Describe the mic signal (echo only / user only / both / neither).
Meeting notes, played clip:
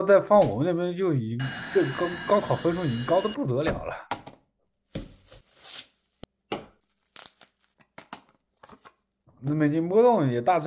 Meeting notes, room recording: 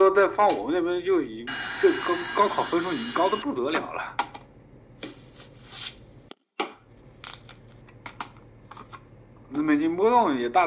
echo only